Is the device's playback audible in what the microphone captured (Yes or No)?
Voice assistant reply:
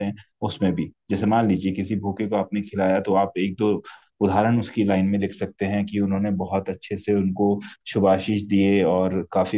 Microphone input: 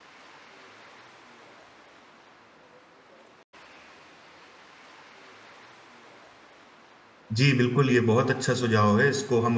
No